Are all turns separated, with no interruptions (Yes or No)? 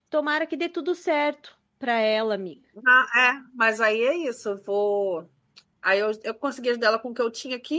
Yes